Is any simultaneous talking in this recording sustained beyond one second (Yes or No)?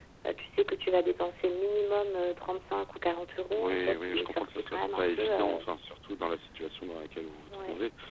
Yes